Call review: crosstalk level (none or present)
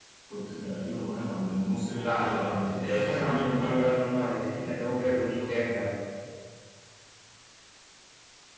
present